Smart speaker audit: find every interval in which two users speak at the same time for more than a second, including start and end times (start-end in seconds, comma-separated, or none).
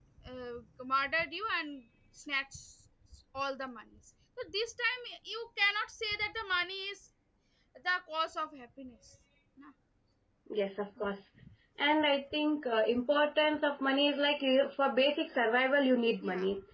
none